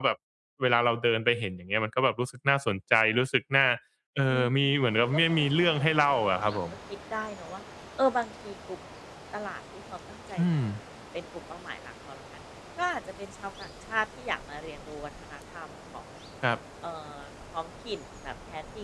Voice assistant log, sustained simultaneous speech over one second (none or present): present